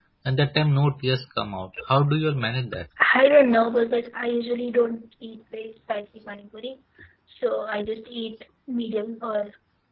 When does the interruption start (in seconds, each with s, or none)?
none